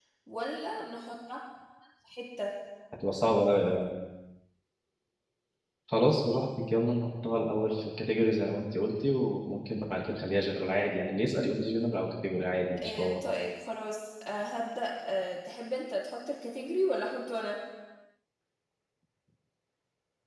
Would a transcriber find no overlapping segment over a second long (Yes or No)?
Yes